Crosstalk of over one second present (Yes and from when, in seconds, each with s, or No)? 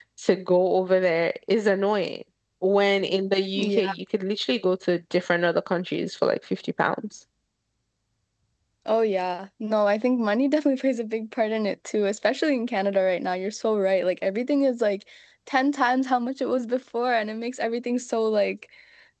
No